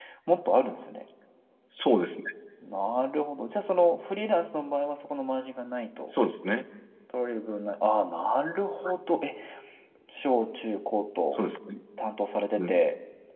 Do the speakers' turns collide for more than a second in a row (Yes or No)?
No